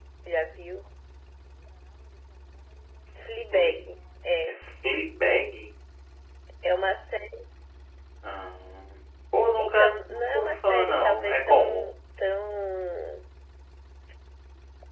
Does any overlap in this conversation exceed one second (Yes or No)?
Yes